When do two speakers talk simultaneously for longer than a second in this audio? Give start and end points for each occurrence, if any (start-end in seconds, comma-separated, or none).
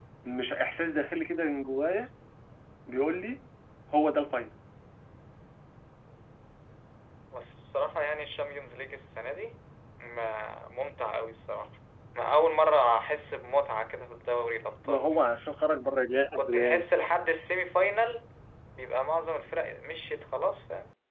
none